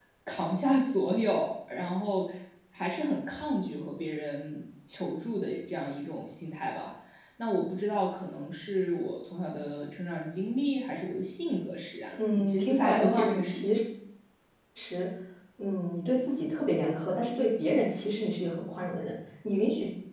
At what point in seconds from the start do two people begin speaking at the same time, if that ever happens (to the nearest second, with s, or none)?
12 s